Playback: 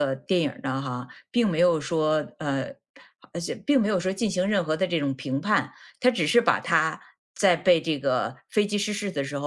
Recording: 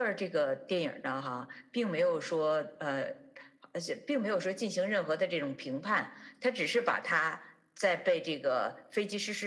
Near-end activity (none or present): none